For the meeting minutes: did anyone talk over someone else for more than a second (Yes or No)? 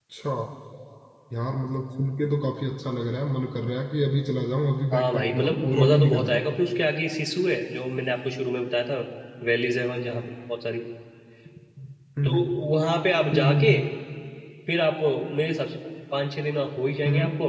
Yes